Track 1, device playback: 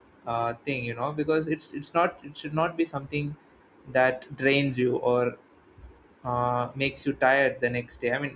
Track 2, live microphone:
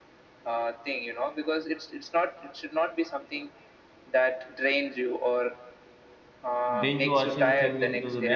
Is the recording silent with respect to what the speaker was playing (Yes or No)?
No